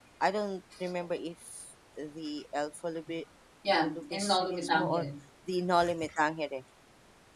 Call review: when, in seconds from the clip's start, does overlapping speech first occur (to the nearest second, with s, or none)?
4 s